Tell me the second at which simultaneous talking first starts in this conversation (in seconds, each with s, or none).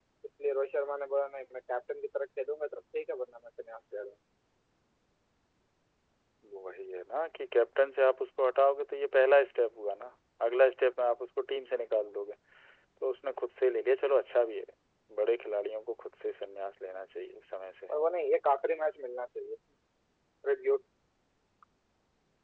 none